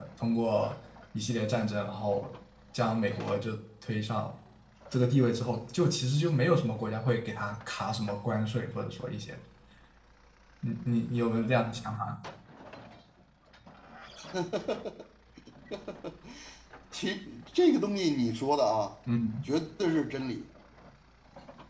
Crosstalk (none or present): none